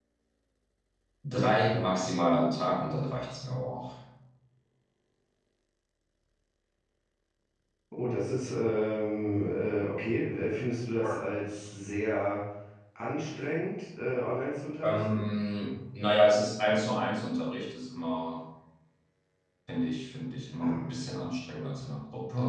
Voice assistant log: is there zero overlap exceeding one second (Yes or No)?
Yes